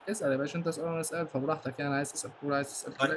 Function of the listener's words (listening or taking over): taking over